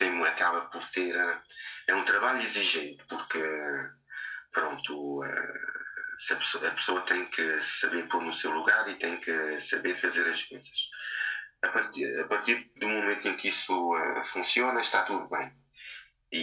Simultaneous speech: No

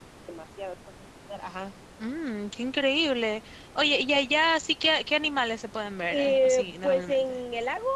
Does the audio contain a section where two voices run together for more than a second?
Yes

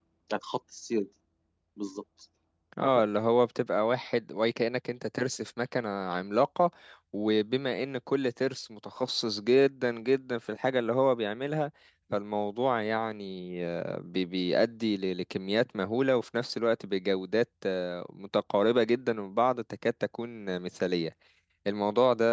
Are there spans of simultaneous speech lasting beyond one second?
No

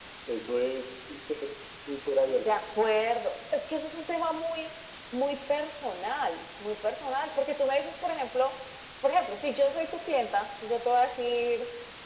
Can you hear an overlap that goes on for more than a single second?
No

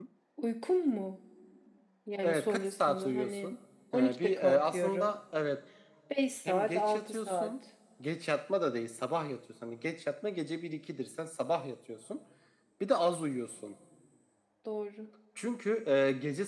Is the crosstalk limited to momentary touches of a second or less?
No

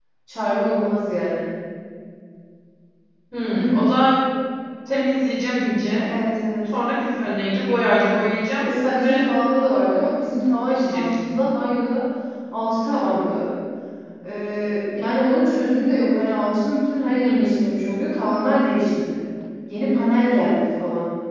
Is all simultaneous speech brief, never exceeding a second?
Yes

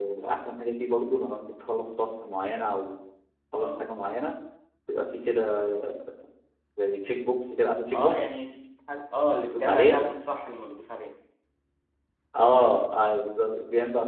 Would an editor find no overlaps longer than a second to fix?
Yes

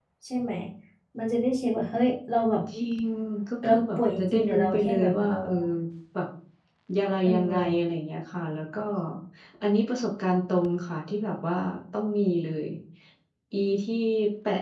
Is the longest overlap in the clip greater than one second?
Yes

